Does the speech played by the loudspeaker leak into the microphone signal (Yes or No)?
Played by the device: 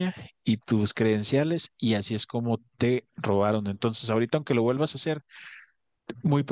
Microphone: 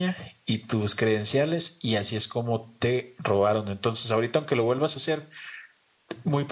Yes